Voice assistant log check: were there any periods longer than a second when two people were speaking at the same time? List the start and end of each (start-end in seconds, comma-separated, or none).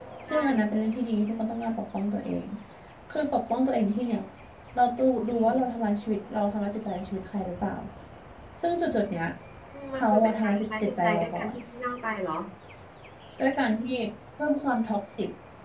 10.0-11.5